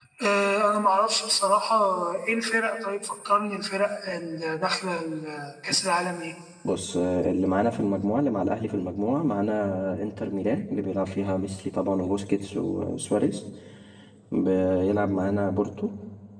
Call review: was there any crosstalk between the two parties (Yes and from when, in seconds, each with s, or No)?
No